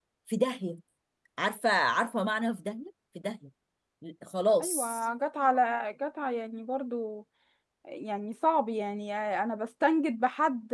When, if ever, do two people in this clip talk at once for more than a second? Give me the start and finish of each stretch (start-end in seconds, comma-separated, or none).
none